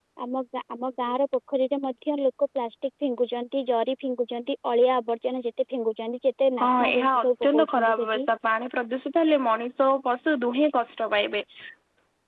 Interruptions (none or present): present